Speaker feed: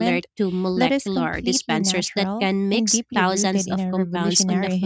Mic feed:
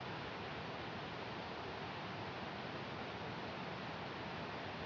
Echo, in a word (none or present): none